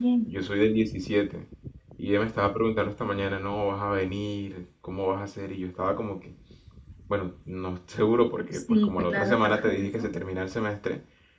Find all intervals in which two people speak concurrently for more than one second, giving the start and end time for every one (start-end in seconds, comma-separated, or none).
8.7-10.1